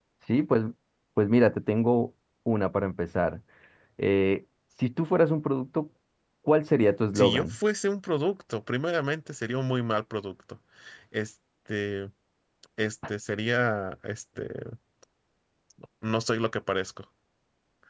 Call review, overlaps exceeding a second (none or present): none